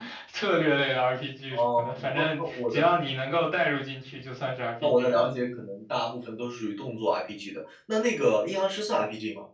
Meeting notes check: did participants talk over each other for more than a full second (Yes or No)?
Yes